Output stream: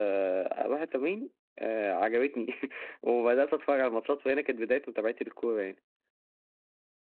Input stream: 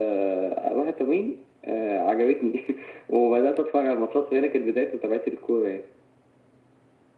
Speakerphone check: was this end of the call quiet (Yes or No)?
Yes